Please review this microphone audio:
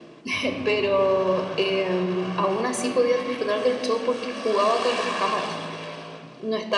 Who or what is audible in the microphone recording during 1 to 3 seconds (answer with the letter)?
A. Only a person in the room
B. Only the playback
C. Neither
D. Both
B